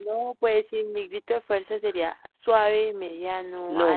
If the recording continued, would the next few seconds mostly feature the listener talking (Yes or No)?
Yes